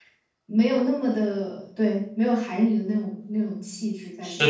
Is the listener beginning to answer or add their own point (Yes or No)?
Yes